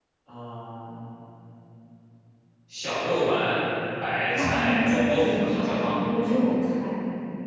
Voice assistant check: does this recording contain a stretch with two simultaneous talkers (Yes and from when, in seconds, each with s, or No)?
Yes, from 4.3 s